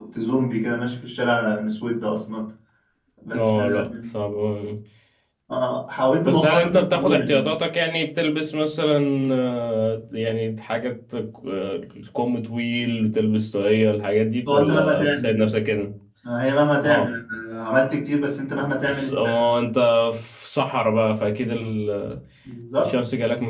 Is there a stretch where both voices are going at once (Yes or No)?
Yes